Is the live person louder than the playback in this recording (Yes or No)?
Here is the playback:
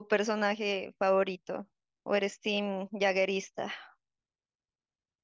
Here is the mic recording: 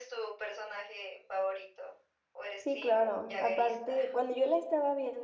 Yes